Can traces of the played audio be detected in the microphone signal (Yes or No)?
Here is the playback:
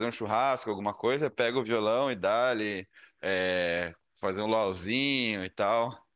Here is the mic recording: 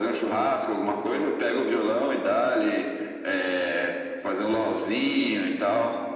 Yes